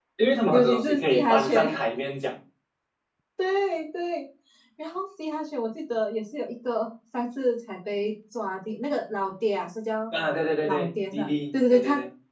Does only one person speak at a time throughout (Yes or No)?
No